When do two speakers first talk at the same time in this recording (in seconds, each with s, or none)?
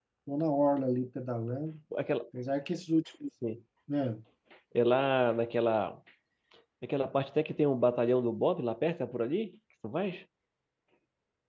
none